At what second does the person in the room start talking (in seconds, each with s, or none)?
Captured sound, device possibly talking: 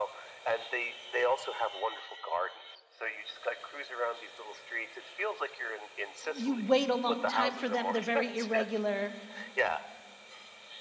6.3 s